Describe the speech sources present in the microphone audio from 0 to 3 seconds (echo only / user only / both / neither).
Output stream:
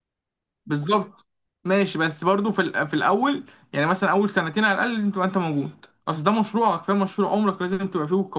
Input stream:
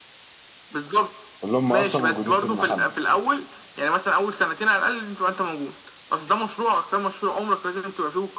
both